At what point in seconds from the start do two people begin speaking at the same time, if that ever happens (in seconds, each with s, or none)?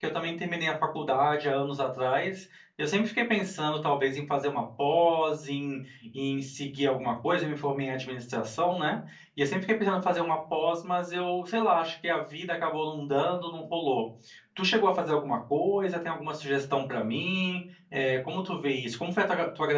none